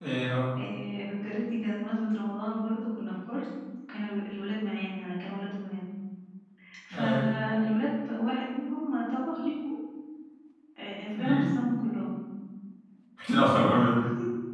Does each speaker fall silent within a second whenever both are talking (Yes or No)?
Yes